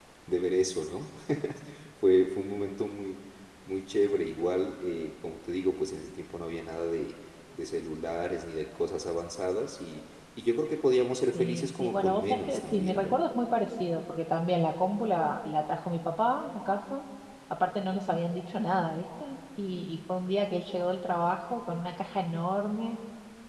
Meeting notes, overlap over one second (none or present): present